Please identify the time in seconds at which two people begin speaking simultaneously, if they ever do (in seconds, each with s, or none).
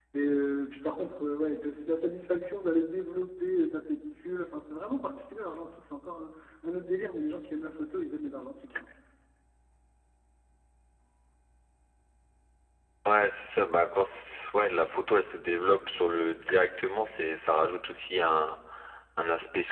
none